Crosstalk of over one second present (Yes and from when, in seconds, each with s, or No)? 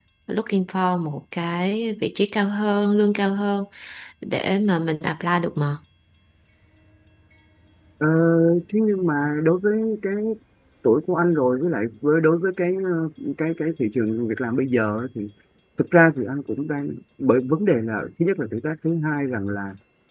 No